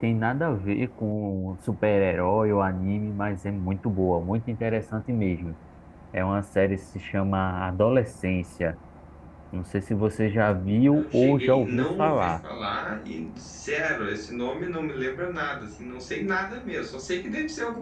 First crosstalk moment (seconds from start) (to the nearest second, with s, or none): 11 s